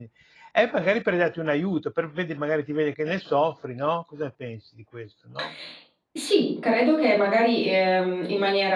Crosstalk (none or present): none